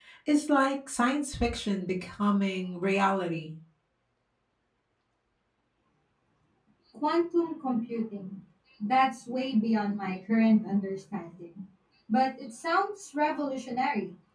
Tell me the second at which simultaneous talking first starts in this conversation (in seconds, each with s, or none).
none